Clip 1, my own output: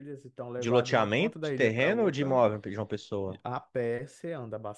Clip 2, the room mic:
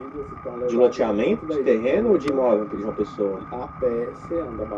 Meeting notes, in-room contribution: none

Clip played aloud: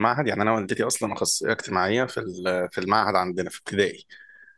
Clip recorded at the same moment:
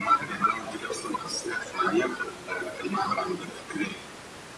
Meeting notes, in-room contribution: none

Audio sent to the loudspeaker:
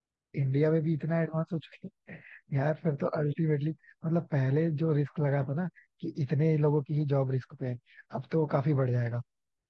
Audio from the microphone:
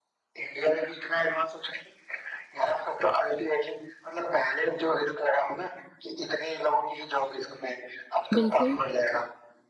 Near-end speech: present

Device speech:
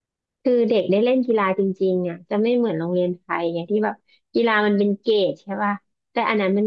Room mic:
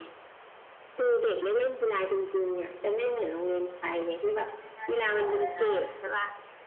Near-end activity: present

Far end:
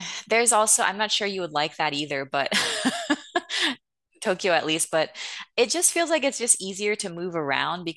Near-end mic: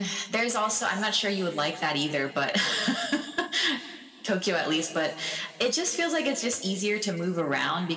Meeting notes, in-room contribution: none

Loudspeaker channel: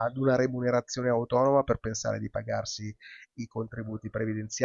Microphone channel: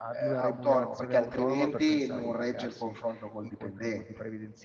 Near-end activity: present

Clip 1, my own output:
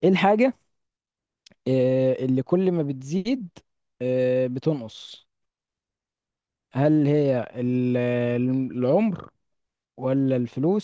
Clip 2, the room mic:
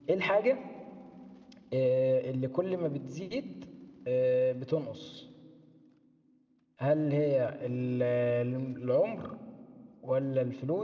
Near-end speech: none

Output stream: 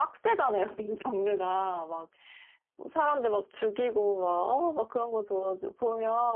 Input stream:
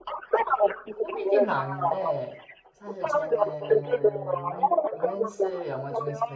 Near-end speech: present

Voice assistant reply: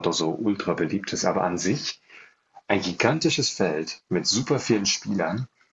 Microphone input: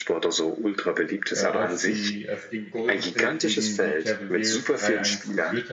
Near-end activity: present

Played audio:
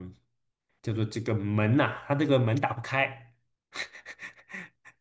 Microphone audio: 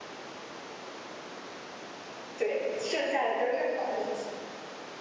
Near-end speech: present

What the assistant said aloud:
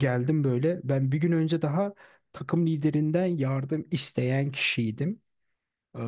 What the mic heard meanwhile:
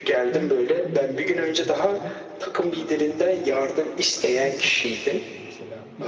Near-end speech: present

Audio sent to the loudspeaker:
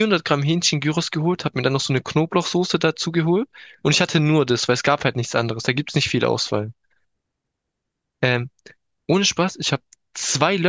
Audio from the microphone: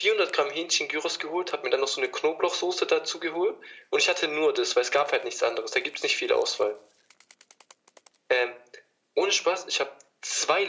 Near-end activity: none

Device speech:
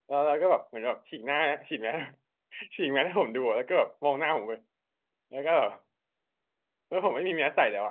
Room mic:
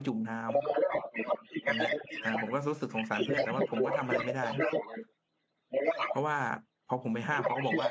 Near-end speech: present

